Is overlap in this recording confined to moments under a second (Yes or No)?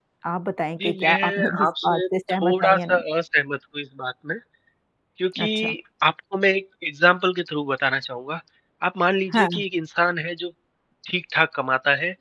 No